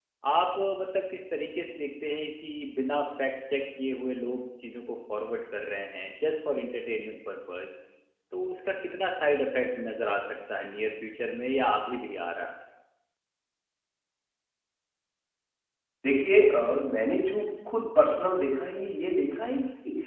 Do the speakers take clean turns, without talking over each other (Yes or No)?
Yes